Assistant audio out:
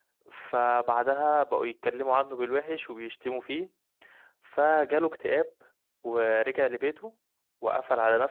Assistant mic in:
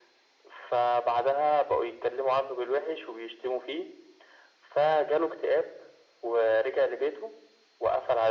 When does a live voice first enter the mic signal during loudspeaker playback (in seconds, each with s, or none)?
none